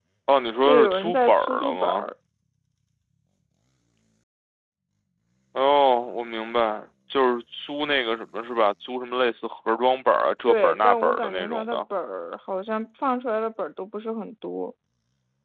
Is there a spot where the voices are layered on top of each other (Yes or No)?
Yes